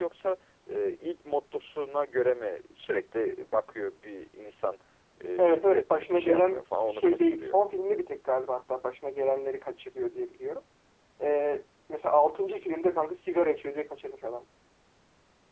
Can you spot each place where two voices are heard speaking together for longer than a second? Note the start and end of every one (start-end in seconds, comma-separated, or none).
5.4-7.6